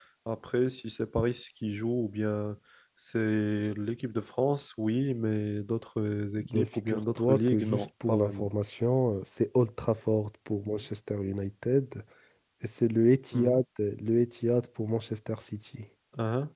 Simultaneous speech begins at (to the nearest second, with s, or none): 6 s